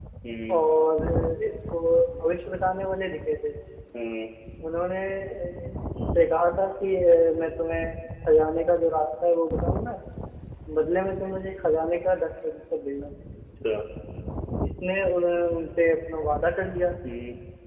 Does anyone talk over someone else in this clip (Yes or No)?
No